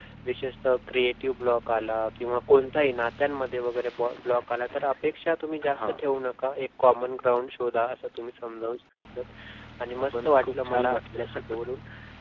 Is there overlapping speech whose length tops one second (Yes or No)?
Yes